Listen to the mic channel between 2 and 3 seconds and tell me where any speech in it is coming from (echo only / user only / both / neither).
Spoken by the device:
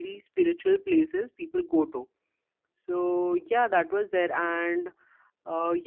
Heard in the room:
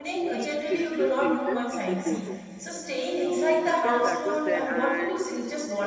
both